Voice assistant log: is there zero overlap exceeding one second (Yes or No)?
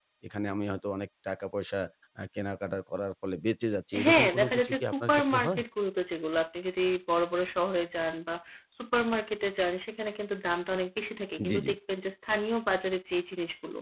No